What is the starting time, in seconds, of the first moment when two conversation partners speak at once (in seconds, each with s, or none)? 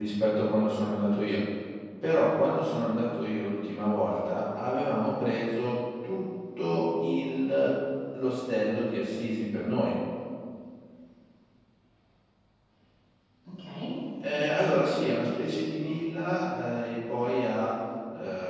14.2 s